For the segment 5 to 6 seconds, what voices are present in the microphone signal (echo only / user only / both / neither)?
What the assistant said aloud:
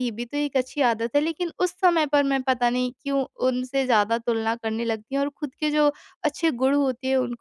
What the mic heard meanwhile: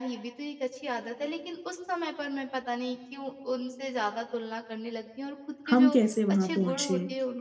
both